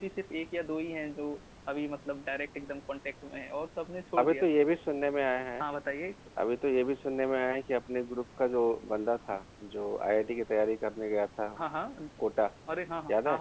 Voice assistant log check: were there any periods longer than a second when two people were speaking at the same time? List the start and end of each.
none

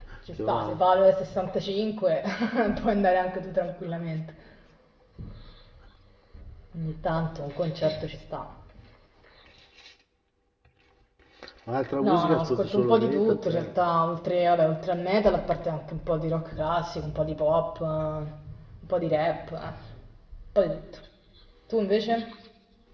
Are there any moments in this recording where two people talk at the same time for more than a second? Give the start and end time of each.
12.0-13.7

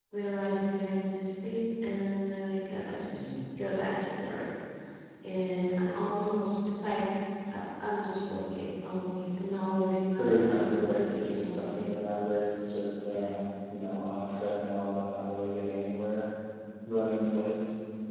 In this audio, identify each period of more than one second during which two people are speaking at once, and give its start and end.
10.2-11.9

